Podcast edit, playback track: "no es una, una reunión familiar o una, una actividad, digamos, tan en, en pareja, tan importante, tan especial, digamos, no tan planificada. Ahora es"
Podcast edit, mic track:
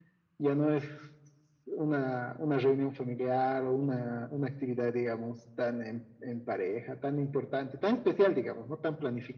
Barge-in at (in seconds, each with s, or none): none